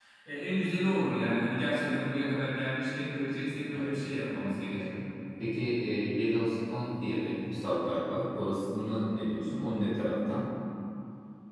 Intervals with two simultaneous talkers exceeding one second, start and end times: none

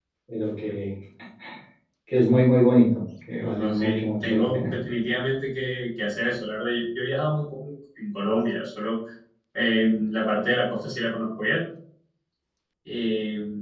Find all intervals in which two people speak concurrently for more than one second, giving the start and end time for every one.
3.4-4.7

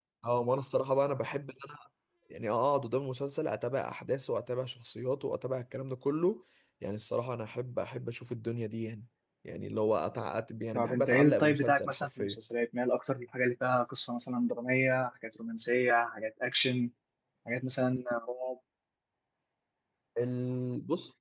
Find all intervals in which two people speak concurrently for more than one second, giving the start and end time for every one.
10.7-12.4

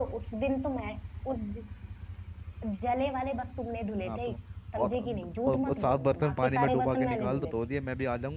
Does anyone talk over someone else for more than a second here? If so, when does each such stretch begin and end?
5.5-7.5

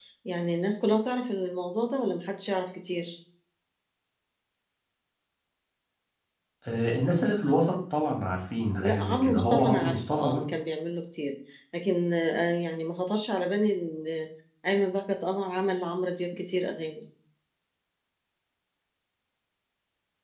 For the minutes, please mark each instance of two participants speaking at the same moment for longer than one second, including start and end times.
8.8-10.4

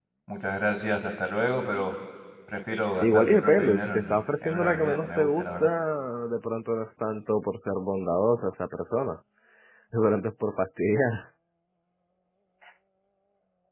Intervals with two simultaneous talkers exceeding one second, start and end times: 3.0-5.7

